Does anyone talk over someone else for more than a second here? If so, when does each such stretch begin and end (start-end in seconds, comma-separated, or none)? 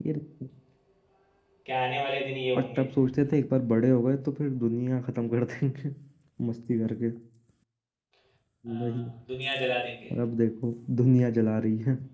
none